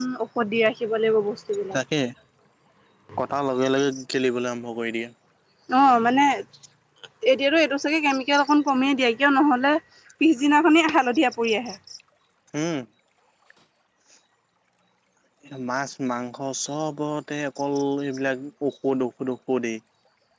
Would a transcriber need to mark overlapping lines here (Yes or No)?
No